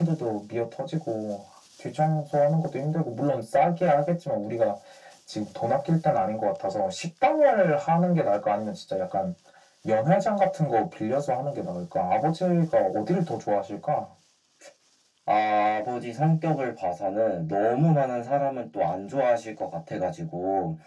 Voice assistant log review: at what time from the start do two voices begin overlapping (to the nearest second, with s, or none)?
none